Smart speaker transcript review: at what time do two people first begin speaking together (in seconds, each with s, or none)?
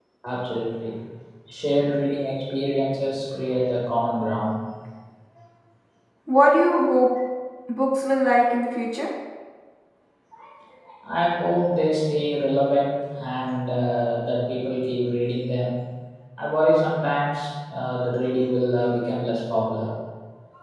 none